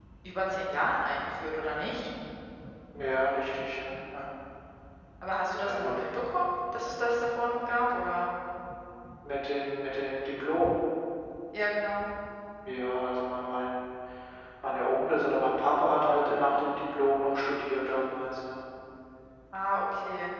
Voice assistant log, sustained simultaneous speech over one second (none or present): none